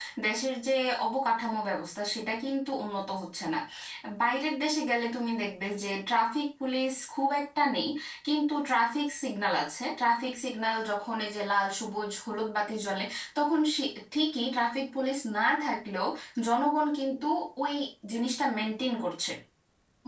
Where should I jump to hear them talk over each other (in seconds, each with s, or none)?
none